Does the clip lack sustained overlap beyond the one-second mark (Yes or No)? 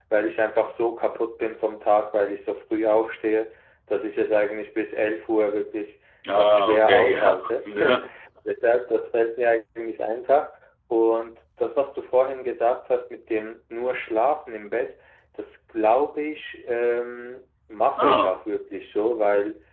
No